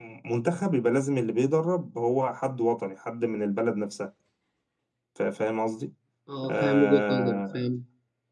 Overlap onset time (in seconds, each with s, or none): 6.4 s